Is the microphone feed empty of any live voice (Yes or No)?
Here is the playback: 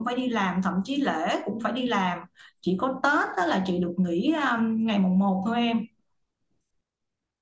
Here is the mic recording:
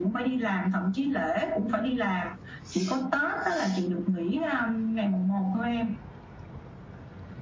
Yes